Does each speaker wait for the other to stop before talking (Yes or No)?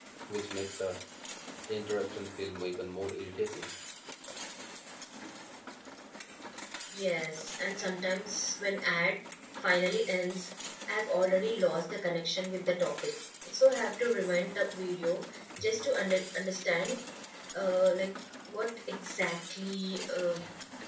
Yes